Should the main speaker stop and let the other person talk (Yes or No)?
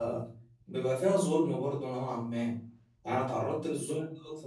No